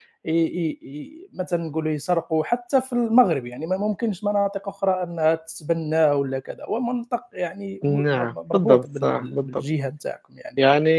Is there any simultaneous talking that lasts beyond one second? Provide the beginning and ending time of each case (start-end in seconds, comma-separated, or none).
7.8-9.6